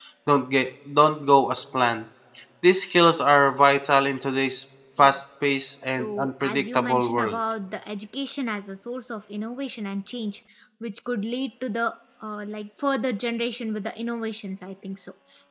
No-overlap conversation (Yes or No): No